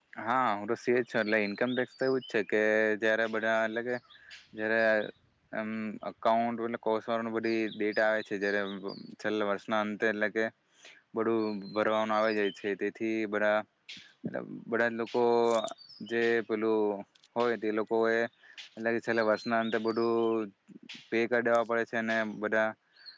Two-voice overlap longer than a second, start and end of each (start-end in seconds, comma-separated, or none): none